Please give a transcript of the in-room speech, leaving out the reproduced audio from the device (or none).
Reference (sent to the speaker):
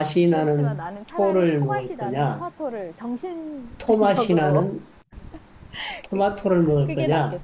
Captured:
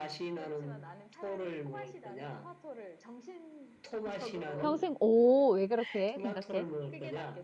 평생, 오, 왜 그렇게 생각해?